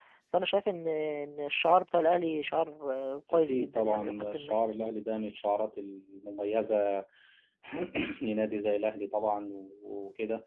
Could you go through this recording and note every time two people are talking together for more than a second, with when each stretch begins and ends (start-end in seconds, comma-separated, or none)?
3.3-4.6